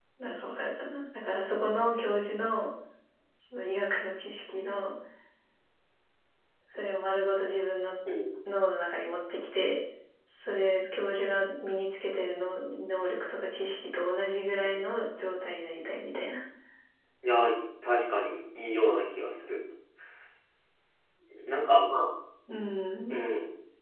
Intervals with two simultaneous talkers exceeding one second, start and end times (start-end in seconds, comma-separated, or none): none